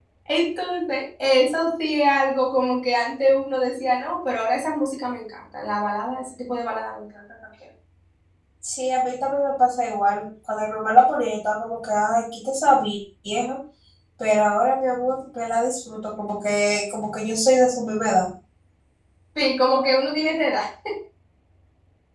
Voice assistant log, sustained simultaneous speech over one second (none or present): none